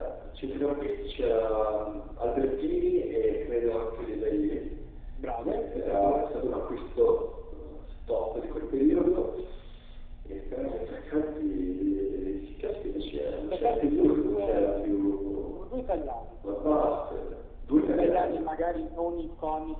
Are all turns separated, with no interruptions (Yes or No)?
No